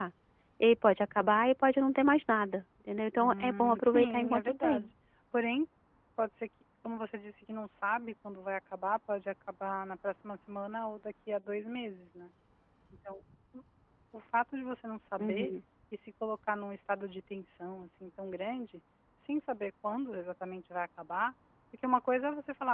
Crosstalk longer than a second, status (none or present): present